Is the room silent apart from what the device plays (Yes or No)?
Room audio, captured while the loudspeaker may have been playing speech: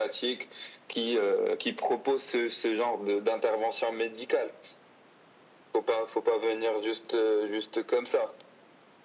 Yes